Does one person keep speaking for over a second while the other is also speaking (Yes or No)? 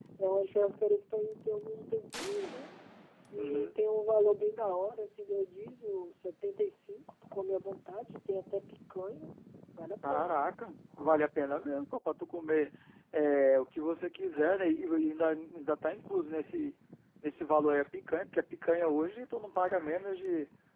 No